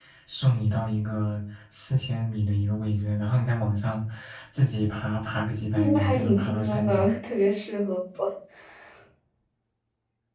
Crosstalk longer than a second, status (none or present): present